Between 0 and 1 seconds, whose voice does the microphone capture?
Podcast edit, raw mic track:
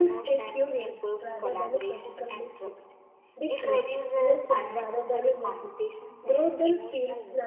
both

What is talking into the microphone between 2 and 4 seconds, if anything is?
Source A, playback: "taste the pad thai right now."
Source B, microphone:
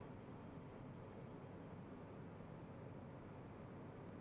neither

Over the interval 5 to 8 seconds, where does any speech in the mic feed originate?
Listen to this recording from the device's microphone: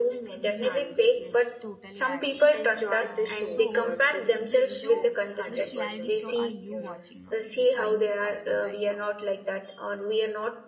both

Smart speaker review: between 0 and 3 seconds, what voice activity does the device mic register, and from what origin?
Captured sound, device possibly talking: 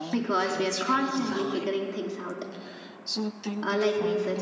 both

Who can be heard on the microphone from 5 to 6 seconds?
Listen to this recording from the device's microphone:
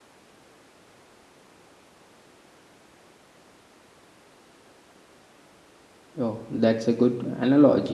neither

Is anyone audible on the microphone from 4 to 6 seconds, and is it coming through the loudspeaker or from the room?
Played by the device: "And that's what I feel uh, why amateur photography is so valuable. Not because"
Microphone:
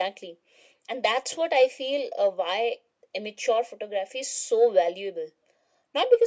echo only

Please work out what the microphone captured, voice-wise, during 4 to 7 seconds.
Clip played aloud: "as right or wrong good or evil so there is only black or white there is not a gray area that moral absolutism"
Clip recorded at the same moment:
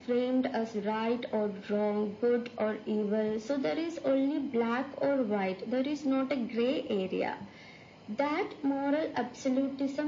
echo only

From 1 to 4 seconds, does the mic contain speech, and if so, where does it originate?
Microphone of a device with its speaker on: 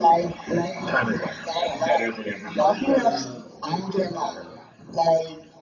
both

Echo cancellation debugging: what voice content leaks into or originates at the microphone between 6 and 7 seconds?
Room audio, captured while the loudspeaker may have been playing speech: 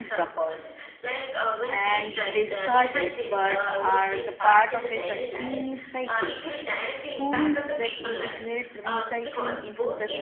both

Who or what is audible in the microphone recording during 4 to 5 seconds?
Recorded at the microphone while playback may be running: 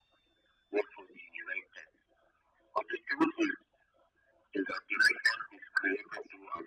echo only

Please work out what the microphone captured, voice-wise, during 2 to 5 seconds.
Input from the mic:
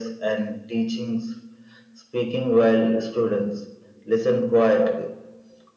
echo only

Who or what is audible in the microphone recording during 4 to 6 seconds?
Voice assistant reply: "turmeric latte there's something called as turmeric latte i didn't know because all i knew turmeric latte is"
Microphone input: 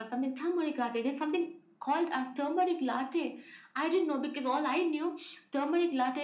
echo only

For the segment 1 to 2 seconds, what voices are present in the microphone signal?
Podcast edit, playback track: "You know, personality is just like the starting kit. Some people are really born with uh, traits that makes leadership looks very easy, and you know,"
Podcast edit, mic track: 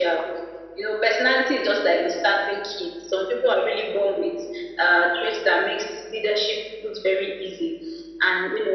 echo only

